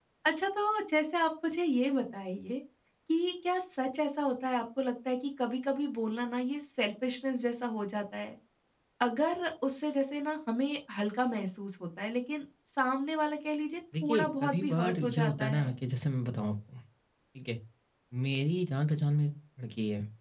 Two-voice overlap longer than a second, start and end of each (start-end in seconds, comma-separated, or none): 14.0-15.7